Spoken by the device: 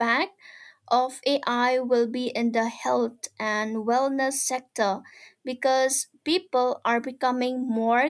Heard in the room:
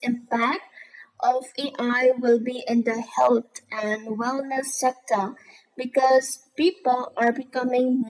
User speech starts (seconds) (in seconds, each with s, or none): none